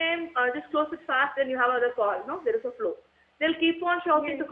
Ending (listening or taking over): listening